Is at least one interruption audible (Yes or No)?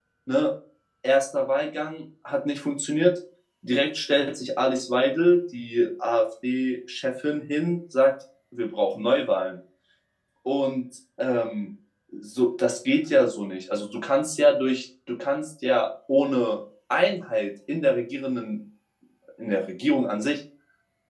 No